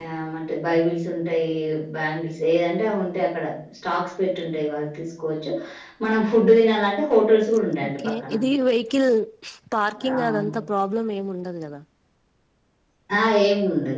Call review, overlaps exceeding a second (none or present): none